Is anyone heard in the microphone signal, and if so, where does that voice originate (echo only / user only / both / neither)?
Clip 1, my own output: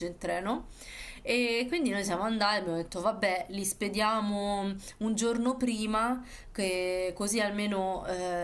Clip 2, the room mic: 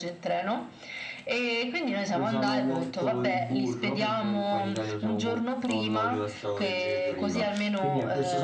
both